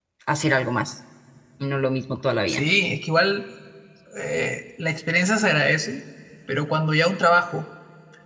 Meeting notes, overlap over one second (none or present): none